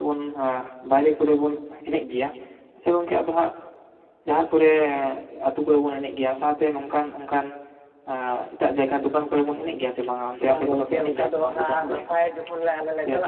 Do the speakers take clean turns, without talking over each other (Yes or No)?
No